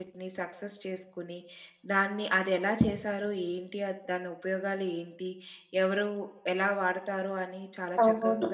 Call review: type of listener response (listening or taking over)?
listening